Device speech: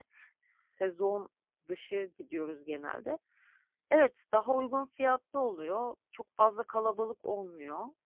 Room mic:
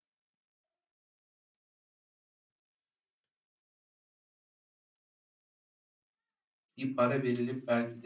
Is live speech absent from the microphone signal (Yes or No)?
No